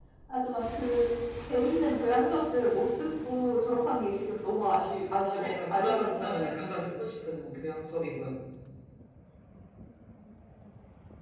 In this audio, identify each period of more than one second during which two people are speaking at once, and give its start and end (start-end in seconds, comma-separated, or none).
5.3-6.5